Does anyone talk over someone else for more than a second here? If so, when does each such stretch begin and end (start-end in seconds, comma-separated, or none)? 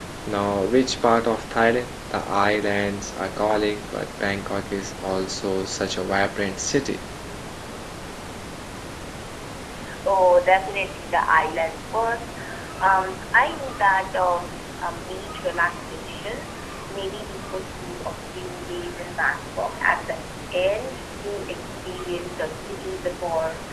none